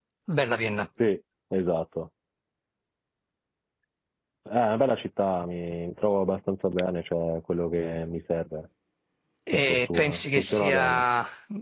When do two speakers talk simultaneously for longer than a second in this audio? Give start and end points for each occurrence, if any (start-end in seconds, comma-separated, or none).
9.5-11.0